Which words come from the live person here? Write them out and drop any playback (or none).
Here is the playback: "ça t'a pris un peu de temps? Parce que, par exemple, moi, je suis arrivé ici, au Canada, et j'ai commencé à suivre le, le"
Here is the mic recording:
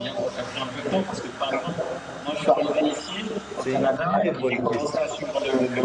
C'est une très bonne question.